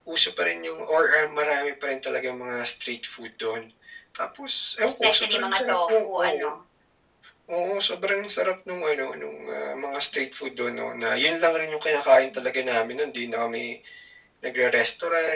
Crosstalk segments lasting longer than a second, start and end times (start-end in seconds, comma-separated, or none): 5.0-6.5